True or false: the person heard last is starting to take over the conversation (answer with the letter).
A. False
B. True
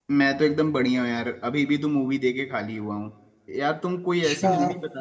A